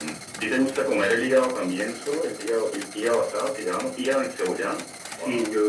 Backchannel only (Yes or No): No